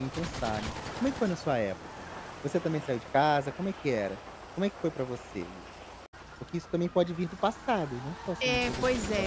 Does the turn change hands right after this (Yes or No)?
Yes